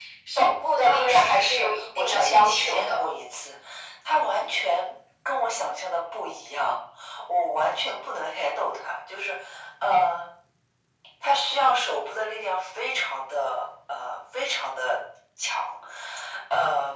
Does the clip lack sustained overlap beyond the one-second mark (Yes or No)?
No